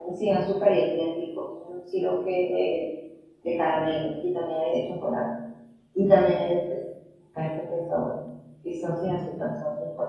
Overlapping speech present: No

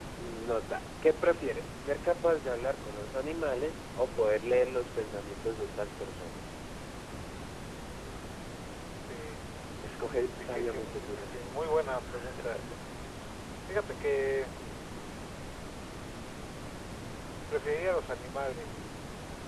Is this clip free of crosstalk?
No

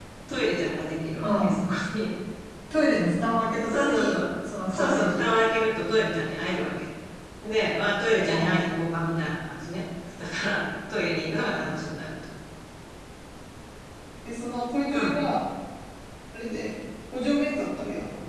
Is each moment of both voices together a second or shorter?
No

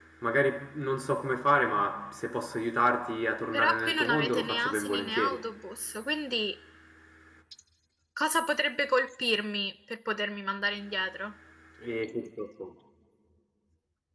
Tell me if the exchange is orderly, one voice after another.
No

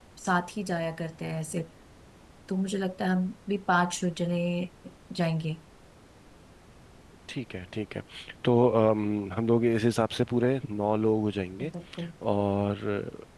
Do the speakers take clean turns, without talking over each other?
Yes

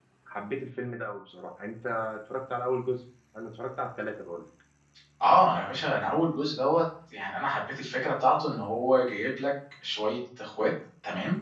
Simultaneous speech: No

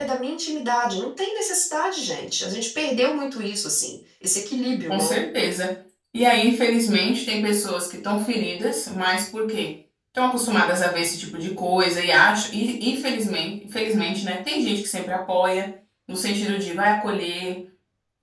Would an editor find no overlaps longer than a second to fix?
Yes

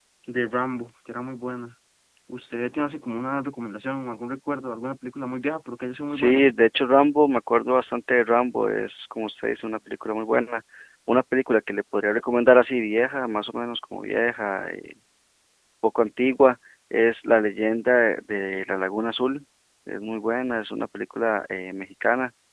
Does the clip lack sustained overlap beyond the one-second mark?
Yes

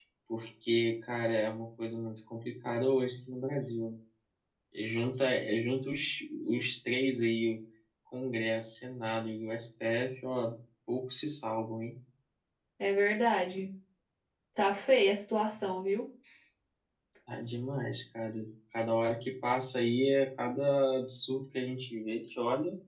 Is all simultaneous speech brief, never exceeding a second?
Yes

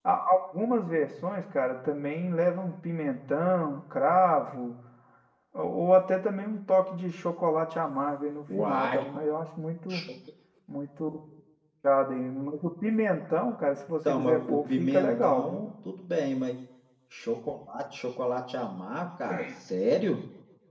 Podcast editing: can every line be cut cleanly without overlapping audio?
No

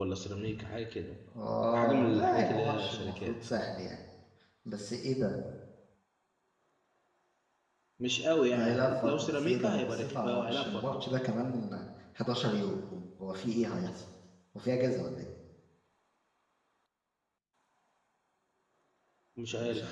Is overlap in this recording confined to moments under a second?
No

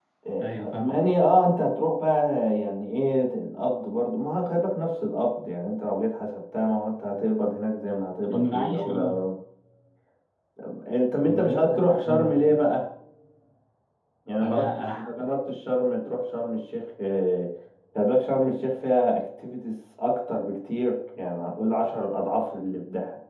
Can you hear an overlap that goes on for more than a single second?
Yes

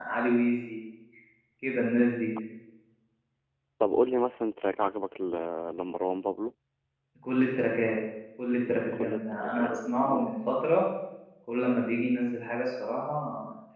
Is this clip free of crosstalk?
No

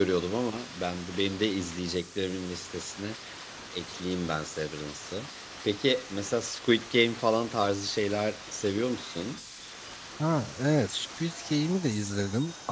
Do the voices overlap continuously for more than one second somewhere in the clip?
No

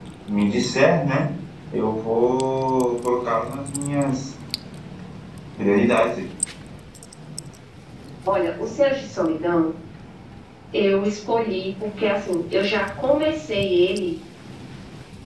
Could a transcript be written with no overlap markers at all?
Yes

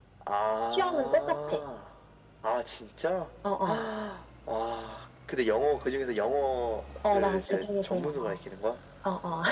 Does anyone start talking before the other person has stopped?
Yes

